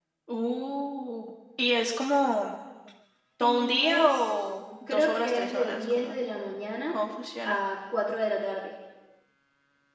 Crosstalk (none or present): present